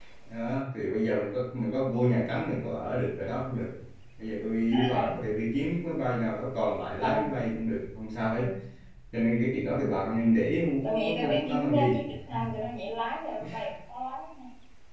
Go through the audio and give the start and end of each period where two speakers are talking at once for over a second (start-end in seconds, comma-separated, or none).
10.8-12.1